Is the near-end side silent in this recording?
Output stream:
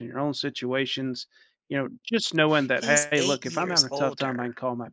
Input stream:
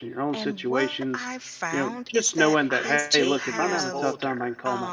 No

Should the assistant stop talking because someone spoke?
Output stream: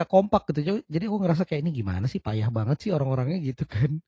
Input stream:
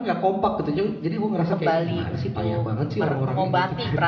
Yes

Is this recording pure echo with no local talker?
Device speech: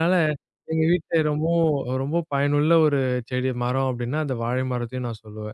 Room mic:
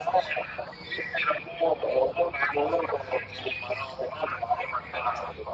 Yes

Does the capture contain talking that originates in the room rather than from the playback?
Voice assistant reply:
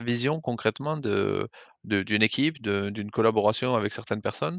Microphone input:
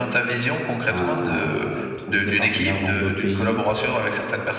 Yes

